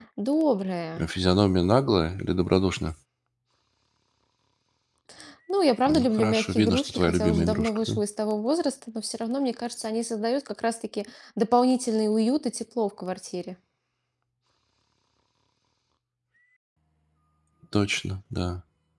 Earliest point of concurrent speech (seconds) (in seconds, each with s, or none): 5.9 s